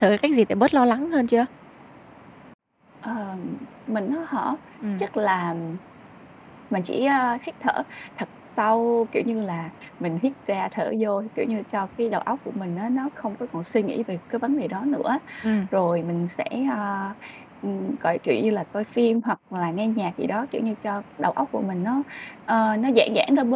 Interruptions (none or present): none